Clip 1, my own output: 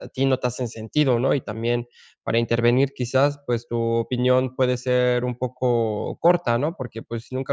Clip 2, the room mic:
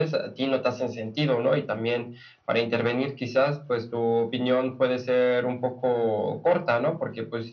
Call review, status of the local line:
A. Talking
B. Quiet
B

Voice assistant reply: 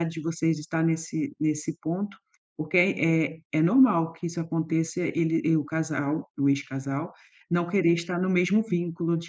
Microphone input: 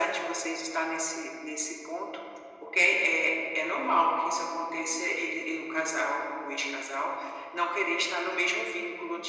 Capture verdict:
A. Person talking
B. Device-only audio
B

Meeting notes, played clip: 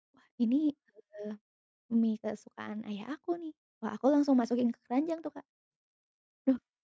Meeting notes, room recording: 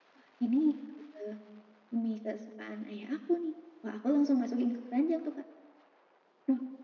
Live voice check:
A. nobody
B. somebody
A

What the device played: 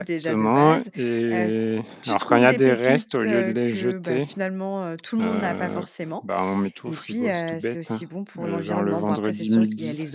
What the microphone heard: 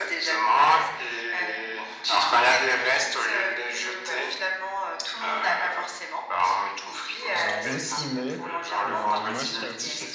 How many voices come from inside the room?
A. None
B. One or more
B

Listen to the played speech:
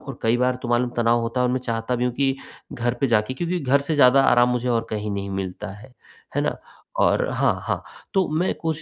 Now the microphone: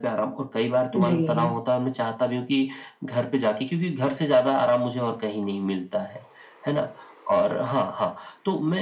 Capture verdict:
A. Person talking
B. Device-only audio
A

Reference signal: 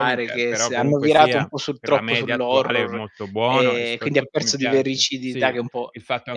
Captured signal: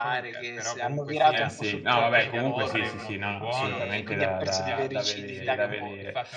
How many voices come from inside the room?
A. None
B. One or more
B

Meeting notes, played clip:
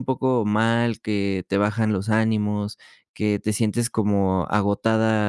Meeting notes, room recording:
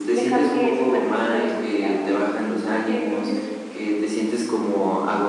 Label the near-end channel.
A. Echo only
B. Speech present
B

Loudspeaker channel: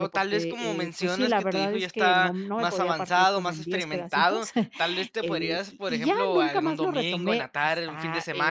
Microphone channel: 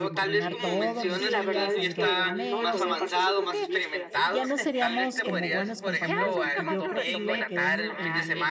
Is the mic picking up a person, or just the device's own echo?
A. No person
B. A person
B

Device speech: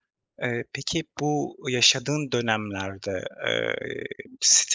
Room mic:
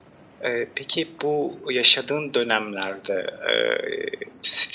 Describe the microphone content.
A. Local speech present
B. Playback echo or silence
B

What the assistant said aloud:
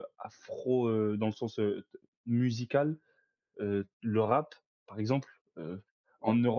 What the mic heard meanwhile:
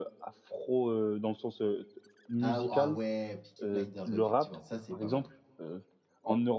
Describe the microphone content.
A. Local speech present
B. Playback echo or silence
A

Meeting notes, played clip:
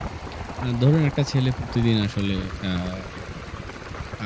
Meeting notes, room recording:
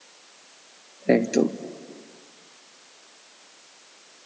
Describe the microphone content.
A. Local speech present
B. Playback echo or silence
A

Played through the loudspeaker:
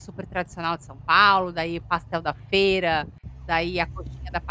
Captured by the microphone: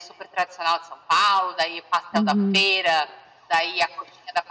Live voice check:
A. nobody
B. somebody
B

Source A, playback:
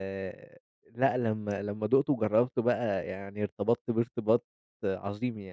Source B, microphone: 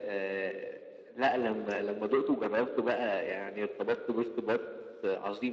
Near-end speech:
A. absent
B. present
A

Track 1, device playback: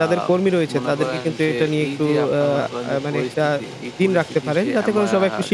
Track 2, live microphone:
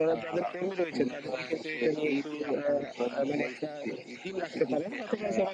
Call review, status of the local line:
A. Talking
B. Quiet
B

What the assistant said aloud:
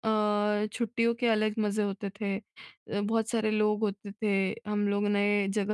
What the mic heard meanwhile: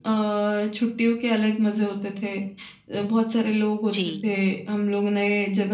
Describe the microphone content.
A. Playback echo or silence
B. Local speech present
B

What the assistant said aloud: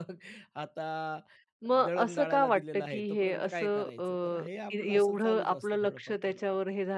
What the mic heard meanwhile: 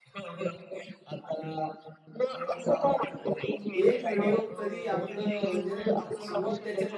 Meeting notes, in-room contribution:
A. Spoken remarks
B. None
A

